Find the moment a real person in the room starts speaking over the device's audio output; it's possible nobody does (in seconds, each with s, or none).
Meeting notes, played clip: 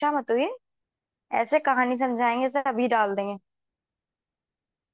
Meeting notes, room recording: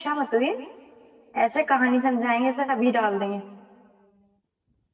none